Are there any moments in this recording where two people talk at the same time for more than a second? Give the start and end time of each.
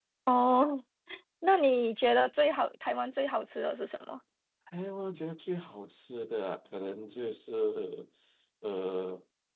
none

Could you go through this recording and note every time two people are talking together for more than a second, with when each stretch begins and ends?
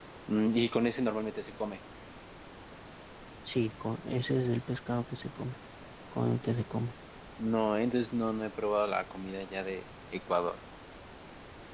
none

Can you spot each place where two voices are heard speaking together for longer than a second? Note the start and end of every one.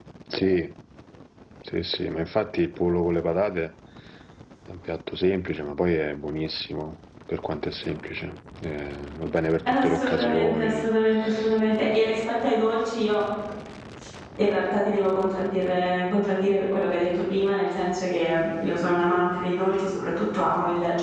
9.7-10.9

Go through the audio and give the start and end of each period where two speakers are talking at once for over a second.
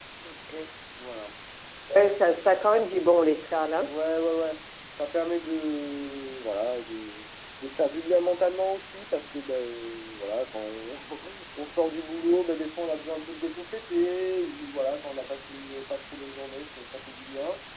none

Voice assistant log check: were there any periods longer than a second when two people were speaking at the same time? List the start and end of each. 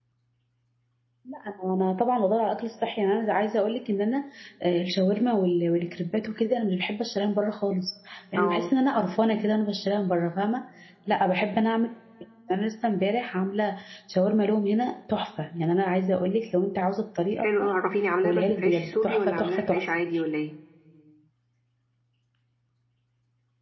18.2-19.8

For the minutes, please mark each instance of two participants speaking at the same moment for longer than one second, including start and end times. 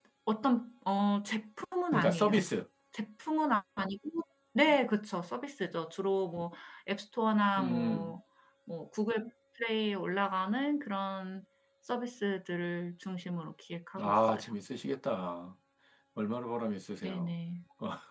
none

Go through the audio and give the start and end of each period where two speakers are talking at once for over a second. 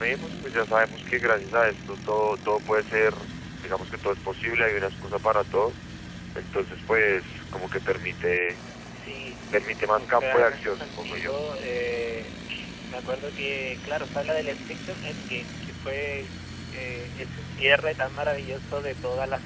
9.9-11.3

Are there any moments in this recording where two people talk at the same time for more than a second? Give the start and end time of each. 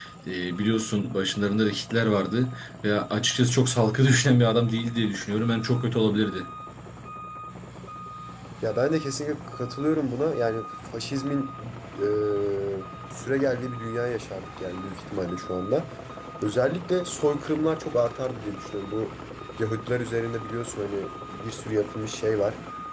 none

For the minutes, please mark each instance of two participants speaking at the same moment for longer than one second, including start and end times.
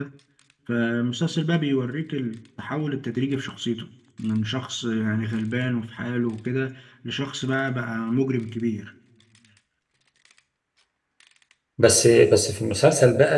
none

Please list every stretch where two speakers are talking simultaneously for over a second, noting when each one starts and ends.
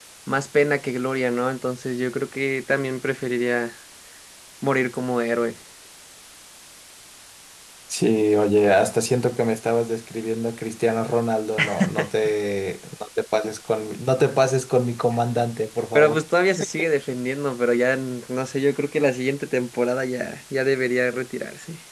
none

